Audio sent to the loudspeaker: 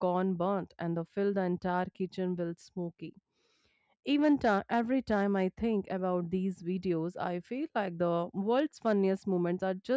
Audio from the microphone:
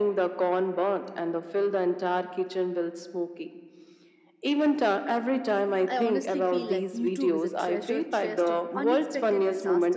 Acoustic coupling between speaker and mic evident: Yes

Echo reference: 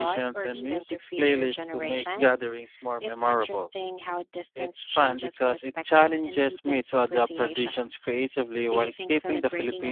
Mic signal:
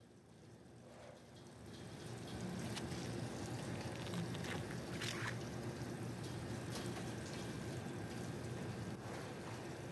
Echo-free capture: Yes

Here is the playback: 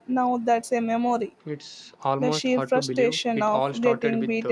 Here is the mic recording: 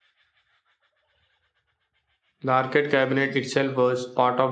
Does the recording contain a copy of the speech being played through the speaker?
No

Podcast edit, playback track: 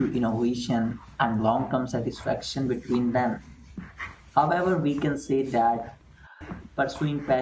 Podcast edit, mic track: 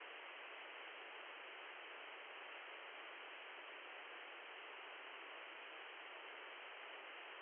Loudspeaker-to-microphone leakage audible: No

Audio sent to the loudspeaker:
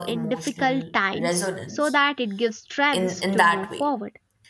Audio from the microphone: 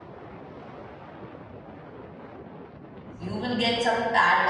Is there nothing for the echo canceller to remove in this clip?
Yes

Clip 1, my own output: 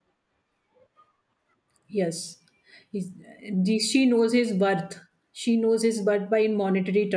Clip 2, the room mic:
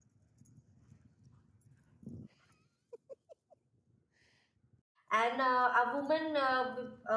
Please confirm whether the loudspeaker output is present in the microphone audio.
No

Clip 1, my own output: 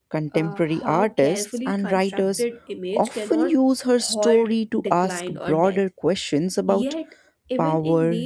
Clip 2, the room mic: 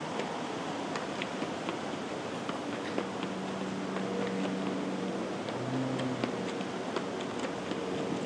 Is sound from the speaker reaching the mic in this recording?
No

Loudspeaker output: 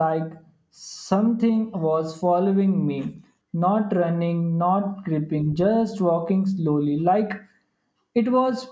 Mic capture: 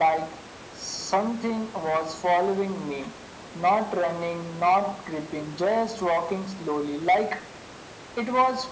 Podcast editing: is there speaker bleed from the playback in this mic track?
Yes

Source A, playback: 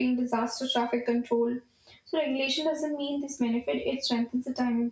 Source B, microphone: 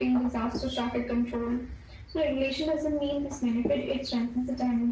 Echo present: Yes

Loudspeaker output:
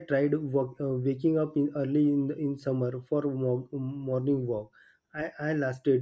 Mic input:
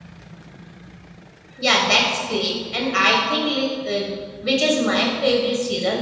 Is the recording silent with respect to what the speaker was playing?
Yes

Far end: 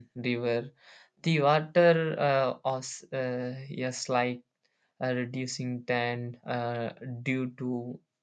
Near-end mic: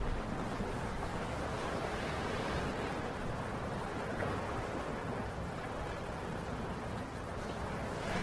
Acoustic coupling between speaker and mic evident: No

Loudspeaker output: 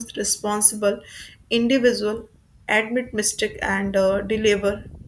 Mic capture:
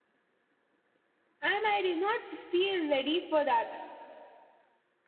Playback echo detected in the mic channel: No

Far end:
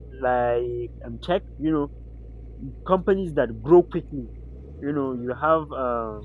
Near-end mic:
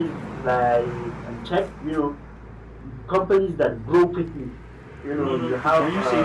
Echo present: Yes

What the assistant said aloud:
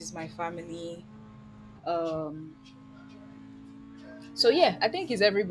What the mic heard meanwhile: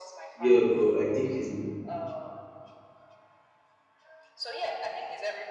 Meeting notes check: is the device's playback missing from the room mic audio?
No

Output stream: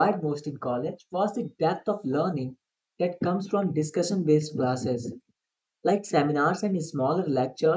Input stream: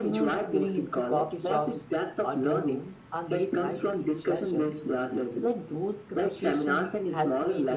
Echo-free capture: No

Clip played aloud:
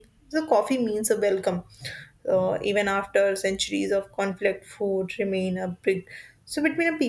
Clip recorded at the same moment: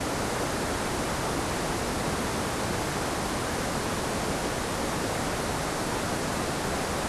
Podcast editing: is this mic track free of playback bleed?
Yes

